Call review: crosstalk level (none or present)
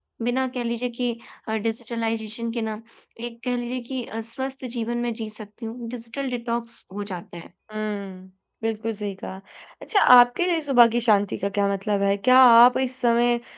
none